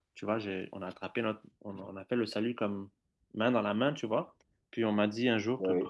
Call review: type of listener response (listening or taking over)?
listening